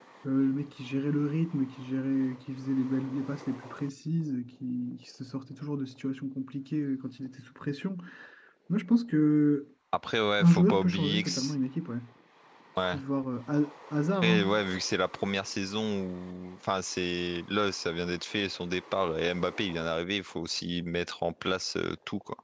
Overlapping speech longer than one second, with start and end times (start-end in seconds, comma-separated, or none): 10.4-11.6